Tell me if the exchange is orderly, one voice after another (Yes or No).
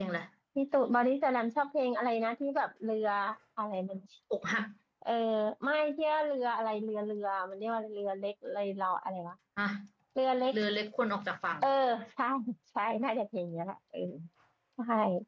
Yes